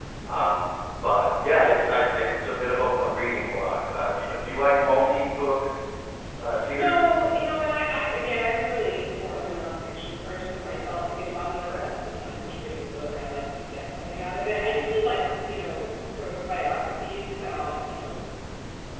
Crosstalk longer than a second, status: none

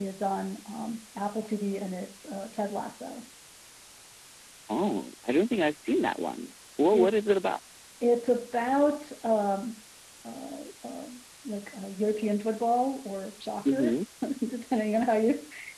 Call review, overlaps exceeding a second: none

